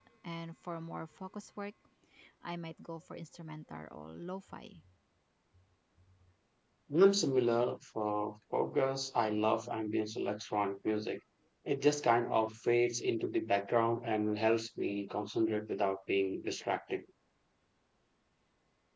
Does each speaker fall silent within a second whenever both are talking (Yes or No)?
Yes